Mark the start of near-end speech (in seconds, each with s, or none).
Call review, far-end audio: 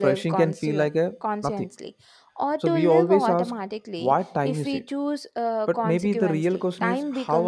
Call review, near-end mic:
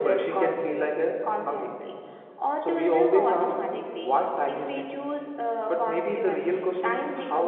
none